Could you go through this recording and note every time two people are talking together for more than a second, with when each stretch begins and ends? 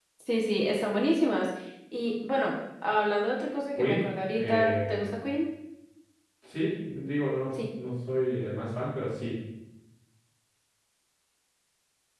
3.7-5.2

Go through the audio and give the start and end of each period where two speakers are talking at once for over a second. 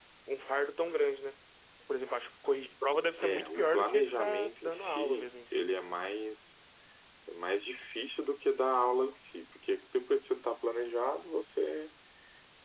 3.2-5.6

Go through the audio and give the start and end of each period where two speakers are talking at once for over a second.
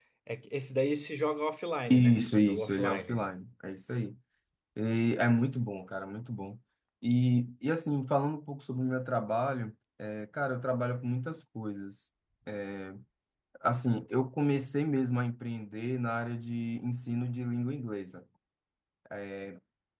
1.9-3.3

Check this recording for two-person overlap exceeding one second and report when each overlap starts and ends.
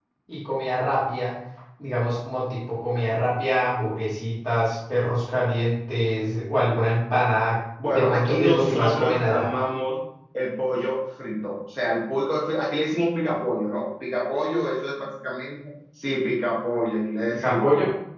7.9-9.5

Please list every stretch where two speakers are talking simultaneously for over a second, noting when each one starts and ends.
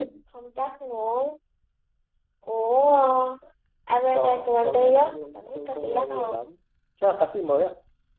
4.1-6.5

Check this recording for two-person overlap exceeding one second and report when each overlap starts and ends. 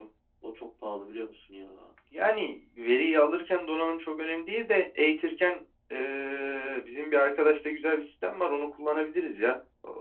none

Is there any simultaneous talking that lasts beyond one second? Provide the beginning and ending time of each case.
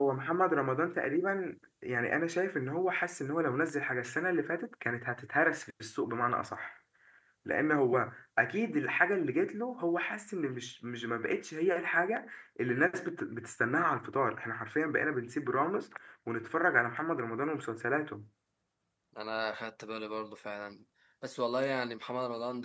none

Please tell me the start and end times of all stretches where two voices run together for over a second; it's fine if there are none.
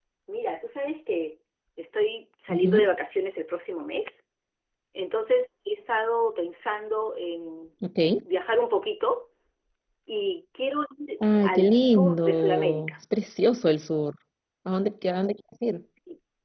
11.4-12.9

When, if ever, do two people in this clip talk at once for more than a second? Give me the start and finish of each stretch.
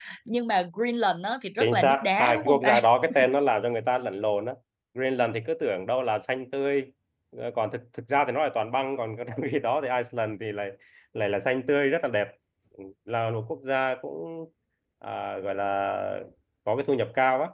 1.6-2.8

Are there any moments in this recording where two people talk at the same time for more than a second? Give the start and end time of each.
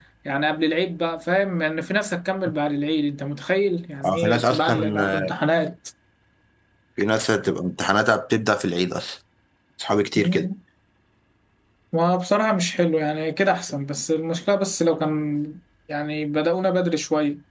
4.0-5.3

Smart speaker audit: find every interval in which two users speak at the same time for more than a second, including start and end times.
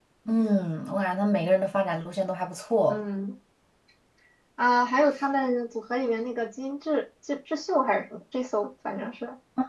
none

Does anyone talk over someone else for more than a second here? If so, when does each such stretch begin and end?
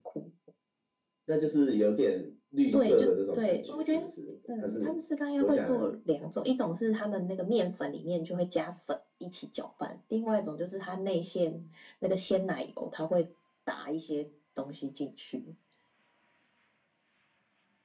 2.7-4.0

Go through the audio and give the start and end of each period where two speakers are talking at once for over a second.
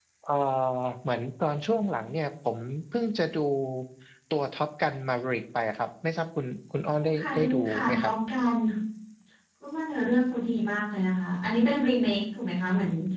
6.9-8.1

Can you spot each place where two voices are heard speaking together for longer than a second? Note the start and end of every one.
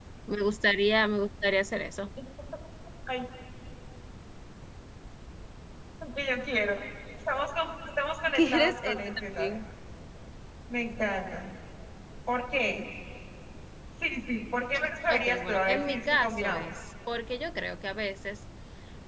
8.3-9.6, 15.1-16.8

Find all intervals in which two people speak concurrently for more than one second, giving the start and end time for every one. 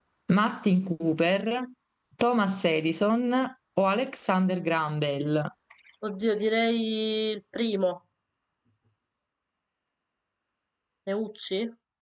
none

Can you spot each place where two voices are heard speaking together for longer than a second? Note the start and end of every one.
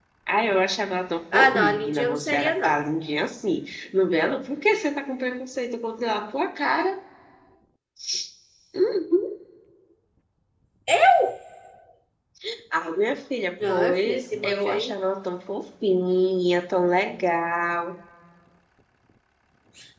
1.3-2.8, 13.6-14.9

